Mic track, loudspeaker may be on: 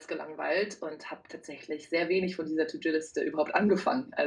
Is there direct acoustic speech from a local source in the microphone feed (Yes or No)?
Yes